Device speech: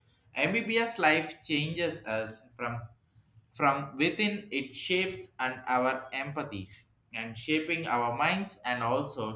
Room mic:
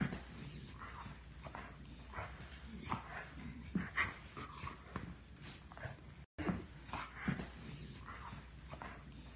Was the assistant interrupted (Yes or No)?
No